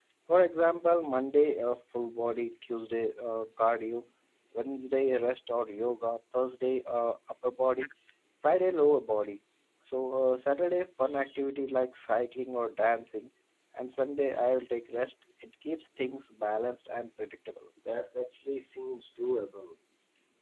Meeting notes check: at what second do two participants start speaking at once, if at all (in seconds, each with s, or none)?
none